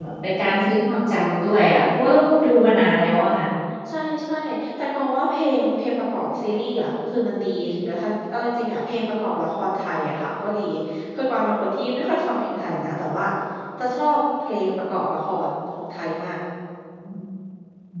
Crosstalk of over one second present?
No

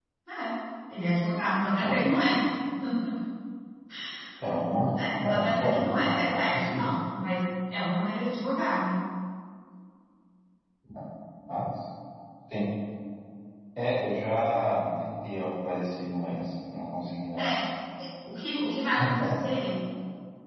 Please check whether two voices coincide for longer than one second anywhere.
Yes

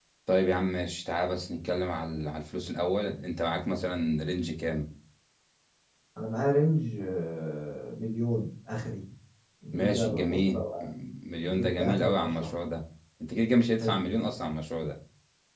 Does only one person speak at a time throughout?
No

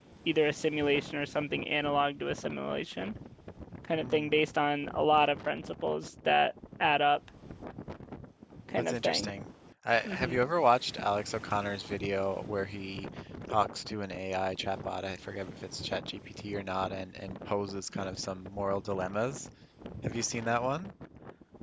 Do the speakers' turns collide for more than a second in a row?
No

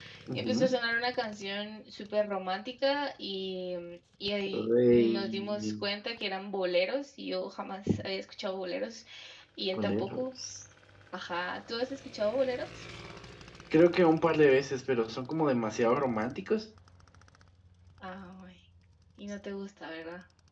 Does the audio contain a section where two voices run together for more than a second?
Yes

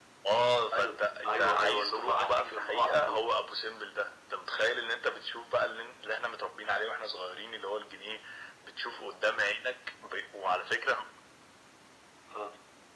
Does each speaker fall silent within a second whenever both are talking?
No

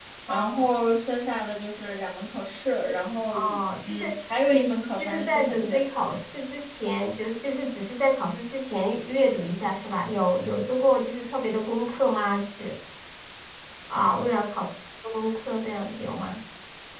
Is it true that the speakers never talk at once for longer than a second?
No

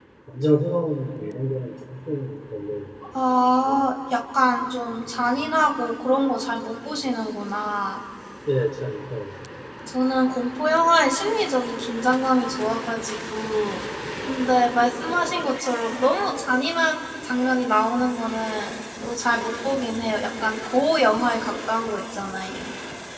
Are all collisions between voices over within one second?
Yes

